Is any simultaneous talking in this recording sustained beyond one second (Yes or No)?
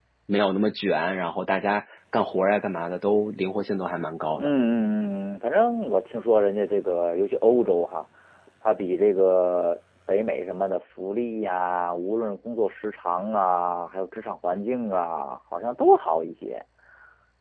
No